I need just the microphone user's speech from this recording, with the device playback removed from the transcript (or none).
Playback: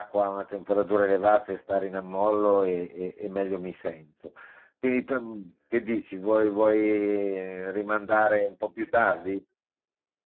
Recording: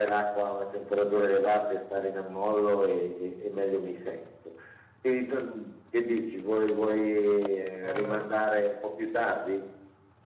Eh,